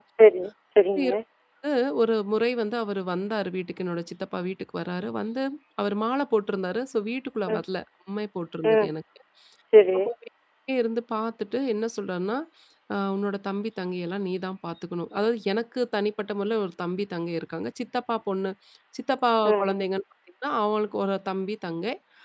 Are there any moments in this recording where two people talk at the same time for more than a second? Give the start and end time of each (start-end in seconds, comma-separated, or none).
none